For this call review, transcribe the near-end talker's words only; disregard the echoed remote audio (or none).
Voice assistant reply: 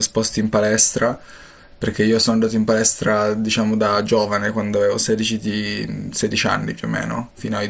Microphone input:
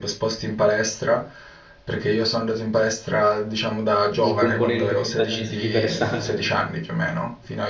un componente paesaggistico interessante.